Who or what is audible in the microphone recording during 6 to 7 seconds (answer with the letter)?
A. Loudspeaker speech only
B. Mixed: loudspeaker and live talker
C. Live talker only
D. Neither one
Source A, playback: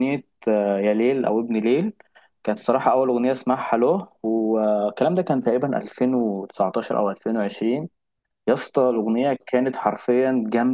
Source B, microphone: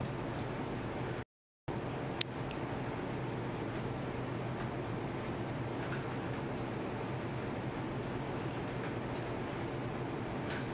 D